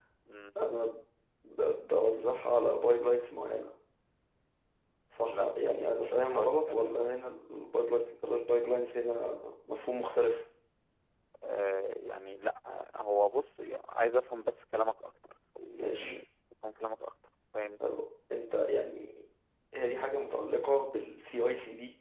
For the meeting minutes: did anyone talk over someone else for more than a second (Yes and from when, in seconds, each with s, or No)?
Yes, from 5.2 s